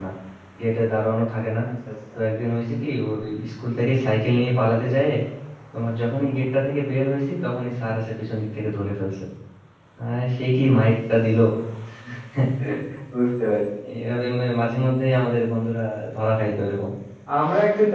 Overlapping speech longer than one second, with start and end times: none

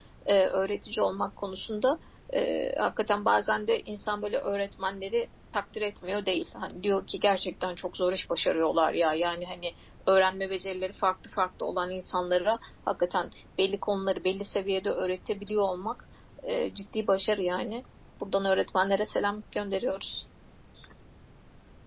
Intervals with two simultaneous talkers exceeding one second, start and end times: none

